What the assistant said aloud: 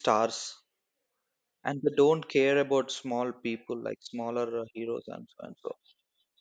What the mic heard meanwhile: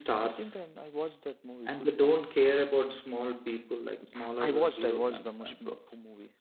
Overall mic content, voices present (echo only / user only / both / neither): both